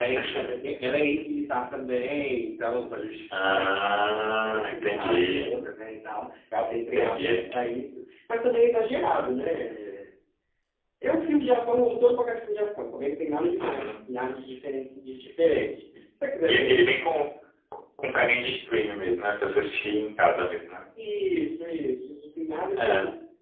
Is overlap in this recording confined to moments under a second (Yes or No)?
No